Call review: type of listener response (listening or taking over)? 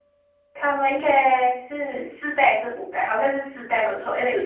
listening